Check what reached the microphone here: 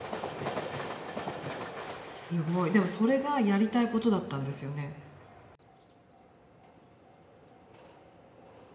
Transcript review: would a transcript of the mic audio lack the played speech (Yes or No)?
Yes